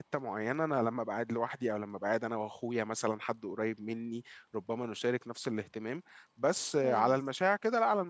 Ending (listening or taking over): listening